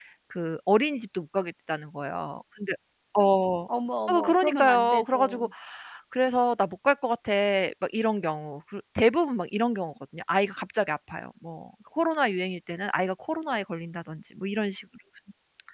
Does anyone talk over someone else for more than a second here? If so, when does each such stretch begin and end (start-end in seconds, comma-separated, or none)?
4.1-5.5